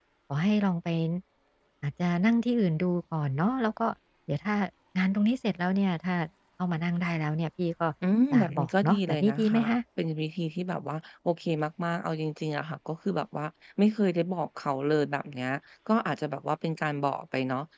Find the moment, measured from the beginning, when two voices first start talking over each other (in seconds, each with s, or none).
8.3 s